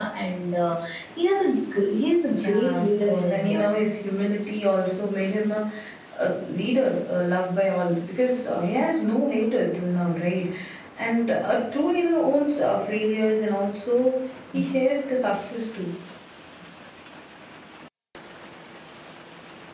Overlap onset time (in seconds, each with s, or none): 2.3 s